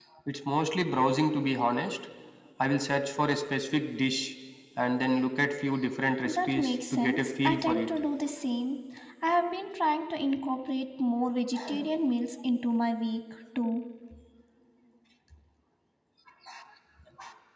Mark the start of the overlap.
6 s

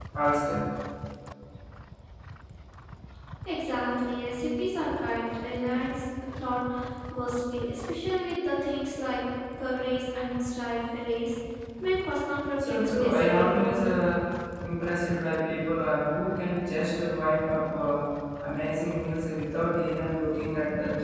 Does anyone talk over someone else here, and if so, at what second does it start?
13 s

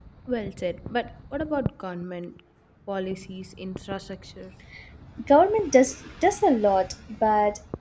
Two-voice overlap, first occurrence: none

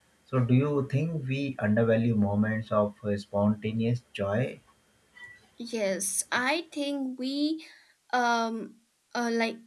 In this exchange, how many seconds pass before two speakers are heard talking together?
none

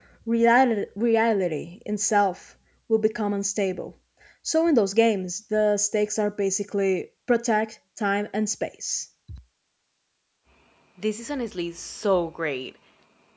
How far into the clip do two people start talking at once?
none

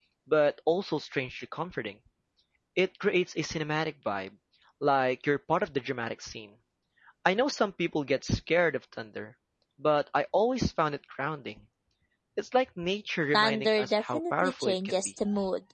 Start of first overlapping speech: 13 s

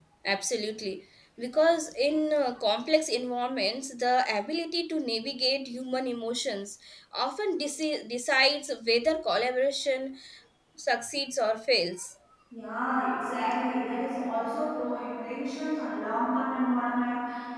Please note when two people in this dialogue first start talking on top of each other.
none

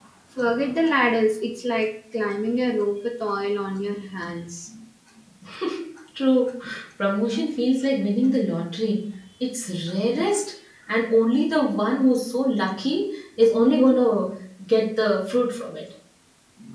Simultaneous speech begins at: none

